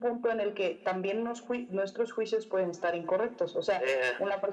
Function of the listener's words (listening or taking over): listening